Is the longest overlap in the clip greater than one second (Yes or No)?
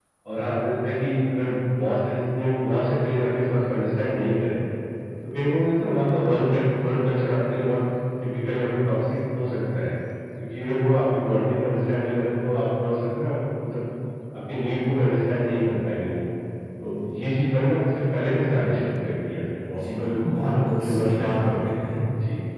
Yes